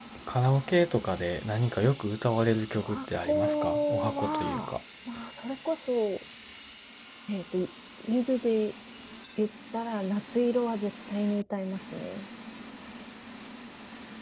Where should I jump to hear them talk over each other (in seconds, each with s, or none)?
2.8 s